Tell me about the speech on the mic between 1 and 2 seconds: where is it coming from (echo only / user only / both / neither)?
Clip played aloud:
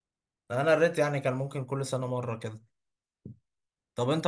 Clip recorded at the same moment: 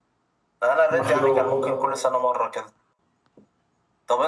both